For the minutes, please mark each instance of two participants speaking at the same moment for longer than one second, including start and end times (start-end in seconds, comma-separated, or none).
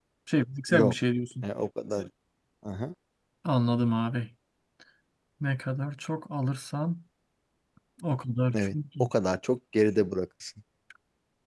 none